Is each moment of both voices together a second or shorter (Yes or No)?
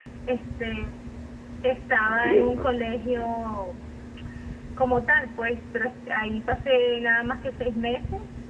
No